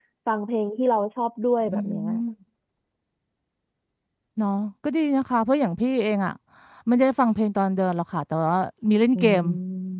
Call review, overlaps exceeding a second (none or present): none